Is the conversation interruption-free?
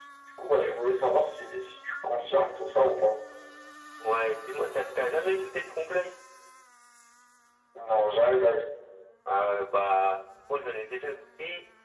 Yes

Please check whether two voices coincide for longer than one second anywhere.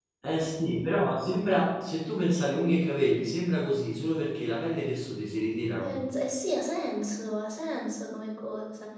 No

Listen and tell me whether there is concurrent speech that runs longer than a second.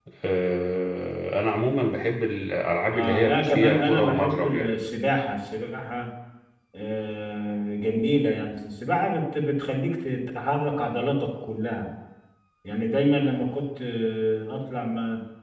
Yes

